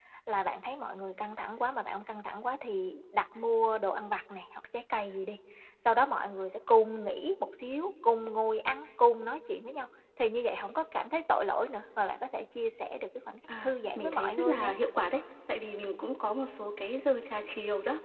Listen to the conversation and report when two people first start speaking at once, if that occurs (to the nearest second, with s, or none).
13 s